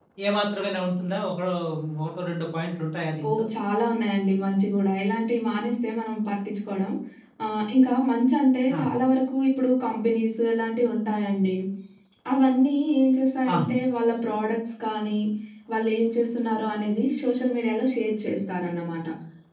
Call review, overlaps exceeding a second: none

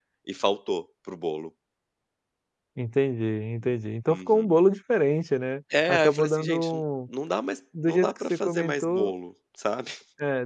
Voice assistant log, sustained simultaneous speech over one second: present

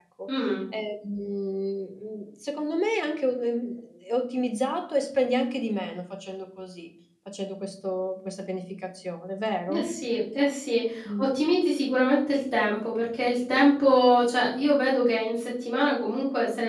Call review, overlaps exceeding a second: none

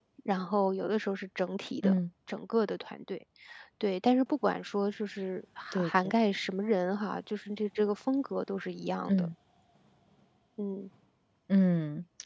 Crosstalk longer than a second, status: none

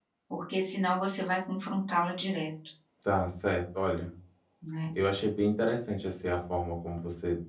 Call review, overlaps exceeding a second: none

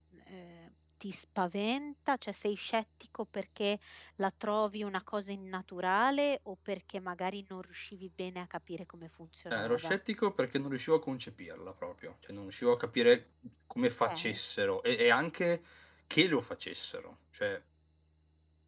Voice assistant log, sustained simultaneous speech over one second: none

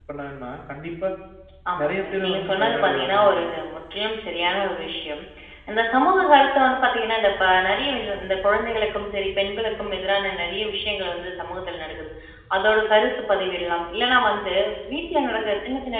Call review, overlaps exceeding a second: present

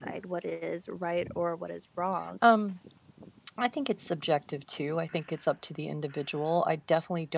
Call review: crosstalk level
none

